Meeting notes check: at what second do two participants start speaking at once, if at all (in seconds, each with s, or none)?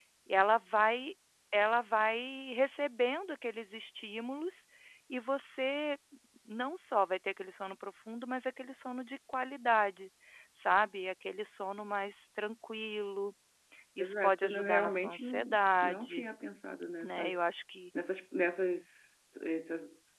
14.0 s